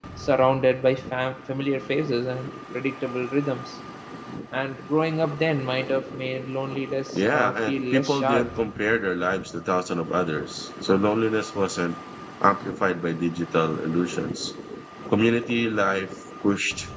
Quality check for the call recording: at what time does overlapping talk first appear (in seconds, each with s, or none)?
7.1 s